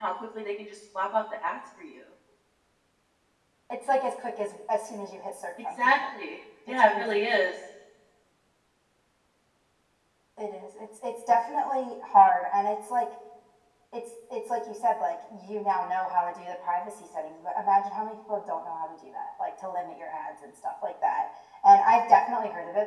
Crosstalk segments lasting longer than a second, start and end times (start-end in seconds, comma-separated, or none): none